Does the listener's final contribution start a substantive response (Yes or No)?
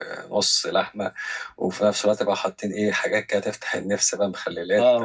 Yes